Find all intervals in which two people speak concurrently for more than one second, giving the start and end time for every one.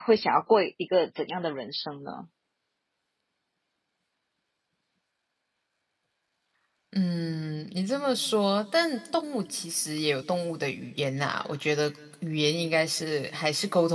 none

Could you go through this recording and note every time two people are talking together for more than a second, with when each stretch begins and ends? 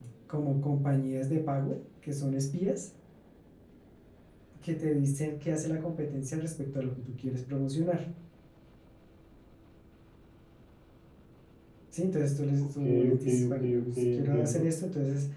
12.8-14.6

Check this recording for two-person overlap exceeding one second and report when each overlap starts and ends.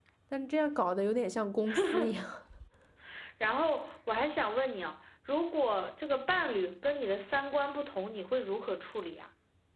none

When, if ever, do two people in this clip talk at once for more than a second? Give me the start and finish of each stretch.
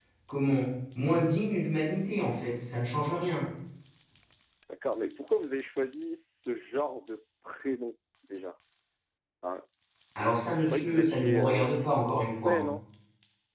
10.2-12.6

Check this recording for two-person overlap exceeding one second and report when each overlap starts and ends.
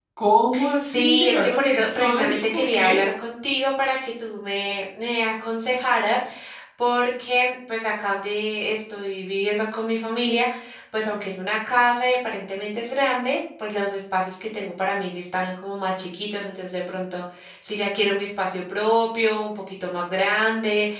0.8-3.0

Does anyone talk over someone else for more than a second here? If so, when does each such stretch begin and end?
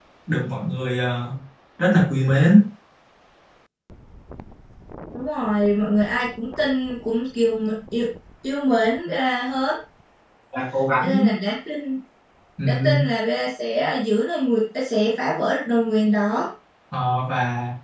none

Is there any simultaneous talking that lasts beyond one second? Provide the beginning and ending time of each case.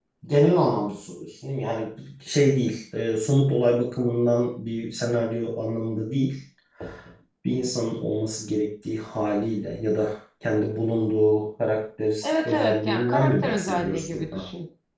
12.2-14.4

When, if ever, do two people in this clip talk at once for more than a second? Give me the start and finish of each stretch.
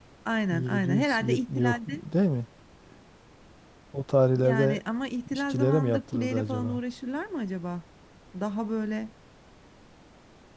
0.5-2.0, 5.3-6.8

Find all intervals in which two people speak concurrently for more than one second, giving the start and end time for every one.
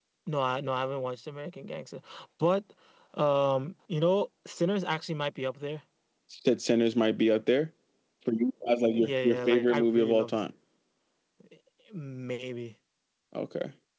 8.9-10.4

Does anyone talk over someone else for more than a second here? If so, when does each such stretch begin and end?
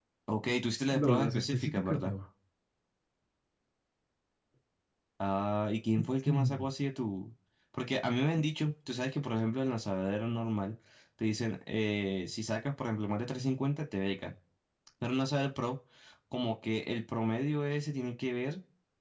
0.9-2.1

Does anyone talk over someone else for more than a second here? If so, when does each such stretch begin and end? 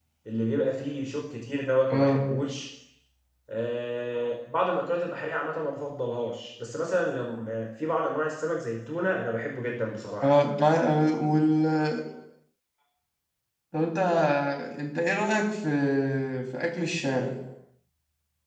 none

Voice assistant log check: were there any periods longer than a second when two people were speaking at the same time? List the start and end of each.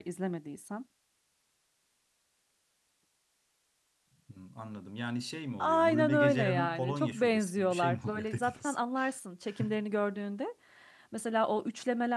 5.6-8.8

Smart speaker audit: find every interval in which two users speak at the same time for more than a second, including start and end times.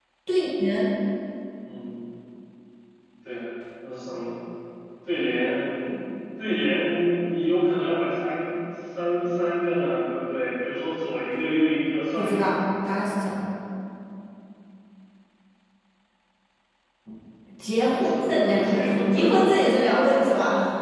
17.8-19.3

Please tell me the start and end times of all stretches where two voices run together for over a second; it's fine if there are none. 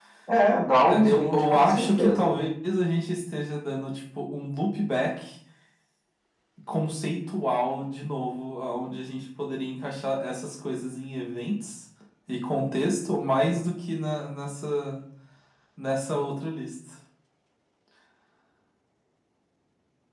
0.9-2.3

